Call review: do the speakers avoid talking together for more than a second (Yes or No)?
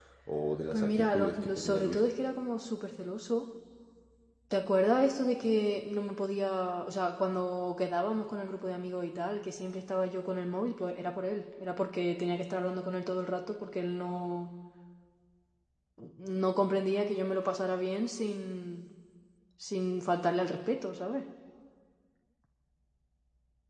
No